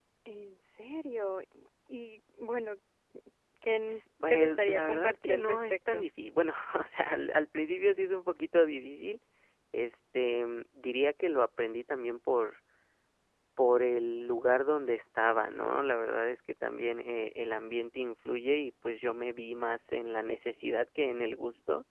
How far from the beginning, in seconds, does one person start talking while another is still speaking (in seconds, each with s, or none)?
4.3 s